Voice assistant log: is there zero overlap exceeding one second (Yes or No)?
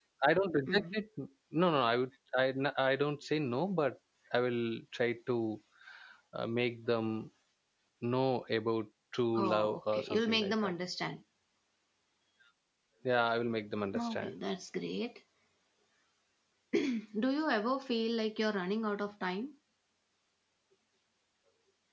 No